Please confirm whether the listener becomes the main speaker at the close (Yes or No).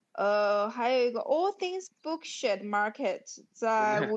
No